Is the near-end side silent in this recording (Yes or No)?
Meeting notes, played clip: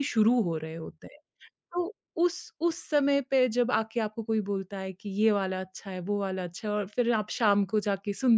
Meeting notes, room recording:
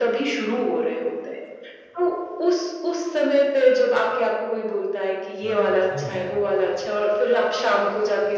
No